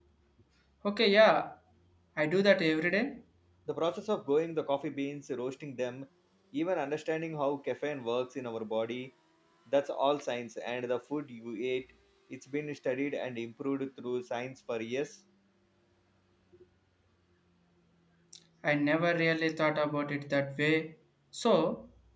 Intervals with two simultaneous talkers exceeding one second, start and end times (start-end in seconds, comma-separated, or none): none